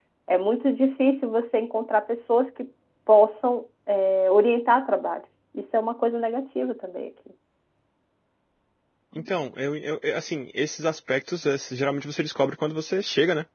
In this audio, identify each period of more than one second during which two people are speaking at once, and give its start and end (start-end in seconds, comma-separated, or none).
none